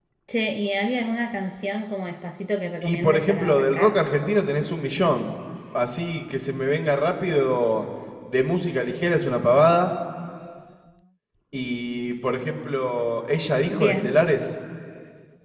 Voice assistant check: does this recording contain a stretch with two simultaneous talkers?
Yes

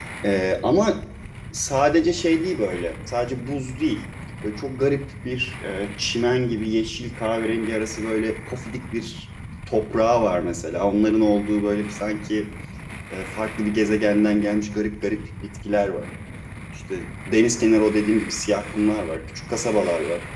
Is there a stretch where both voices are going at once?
No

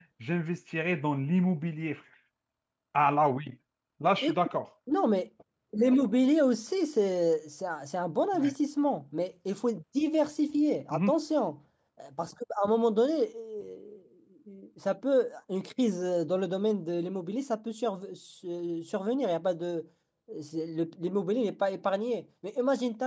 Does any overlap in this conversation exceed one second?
No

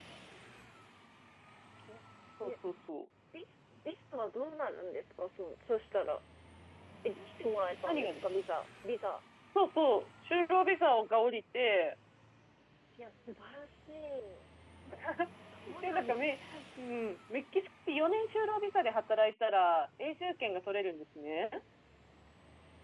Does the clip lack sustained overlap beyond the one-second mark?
Yes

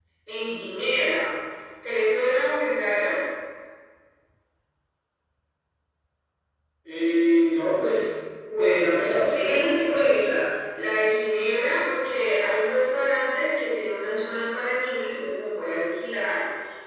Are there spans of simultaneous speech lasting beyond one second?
Yes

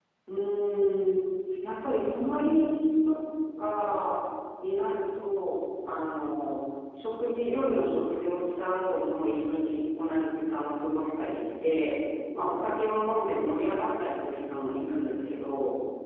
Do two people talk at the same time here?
No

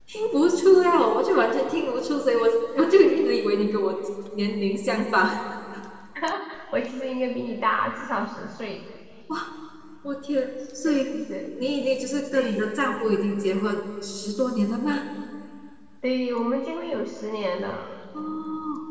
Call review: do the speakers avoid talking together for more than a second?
Yes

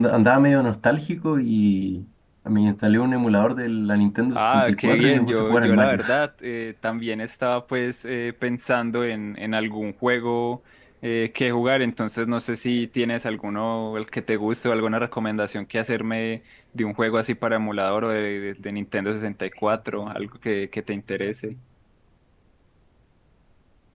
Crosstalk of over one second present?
Yes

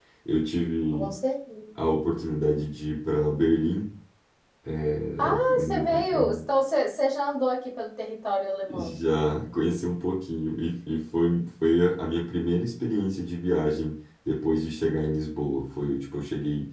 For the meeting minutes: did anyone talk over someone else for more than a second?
Yes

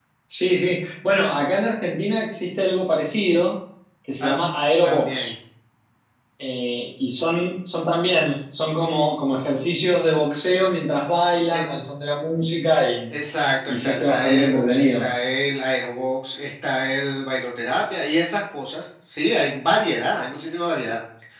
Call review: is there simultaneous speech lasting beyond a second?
Yes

